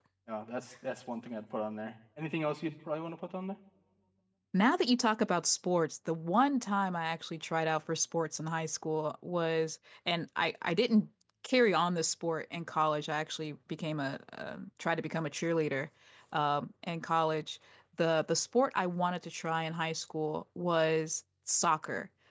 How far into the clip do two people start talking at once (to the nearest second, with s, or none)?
none